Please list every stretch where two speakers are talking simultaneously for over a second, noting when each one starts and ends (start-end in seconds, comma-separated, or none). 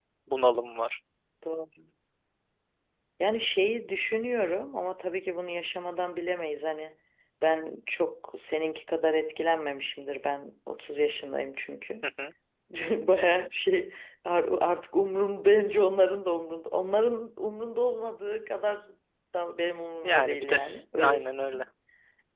20.0-21.6